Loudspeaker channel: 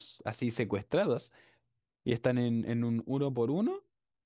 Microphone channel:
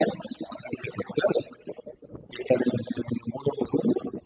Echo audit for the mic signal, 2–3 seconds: echo only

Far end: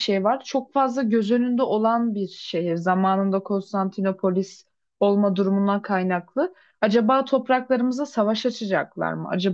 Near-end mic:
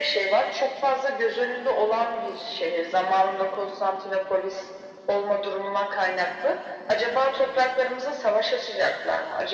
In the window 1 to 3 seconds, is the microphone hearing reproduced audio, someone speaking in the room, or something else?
echo only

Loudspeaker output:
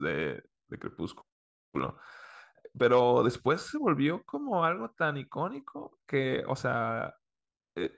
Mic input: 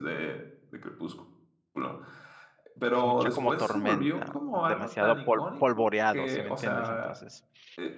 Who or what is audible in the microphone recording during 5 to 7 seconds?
both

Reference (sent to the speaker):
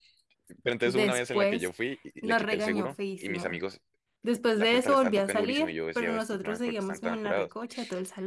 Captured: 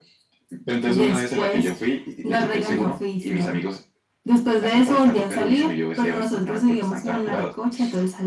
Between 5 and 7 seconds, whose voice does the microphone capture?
echo only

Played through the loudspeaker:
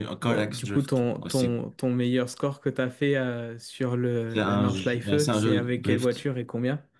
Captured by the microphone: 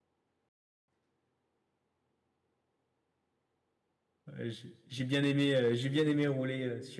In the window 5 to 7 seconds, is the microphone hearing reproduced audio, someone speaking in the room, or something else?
user only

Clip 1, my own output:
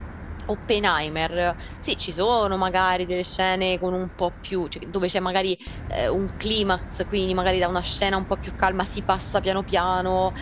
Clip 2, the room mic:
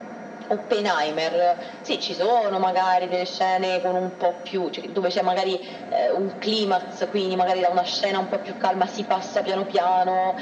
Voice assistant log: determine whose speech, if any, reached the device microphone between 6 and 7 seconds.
echo only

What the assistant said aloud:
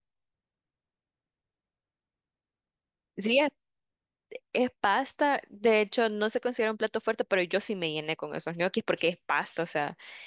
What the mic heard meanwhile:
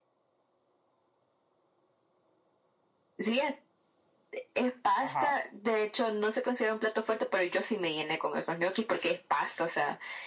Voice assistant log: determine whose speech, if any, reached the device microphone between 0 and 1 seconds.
neither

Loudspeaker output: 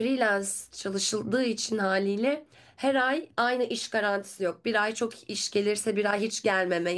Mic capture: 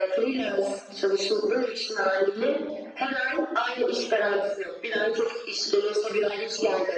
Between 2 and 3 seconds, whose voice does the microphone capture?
echo only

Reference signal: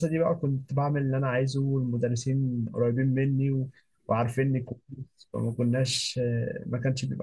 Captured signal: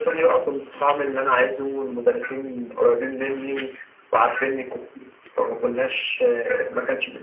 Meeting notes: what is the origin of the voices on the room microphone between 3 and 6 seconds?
echo only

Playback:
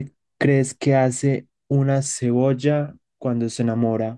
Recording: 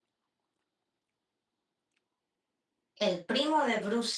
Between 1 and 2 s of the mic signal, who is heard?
neither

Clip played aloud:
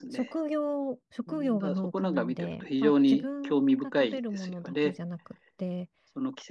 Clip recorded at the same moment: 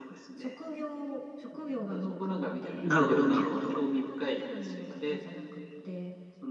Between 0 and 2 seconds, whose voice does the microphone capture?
echo only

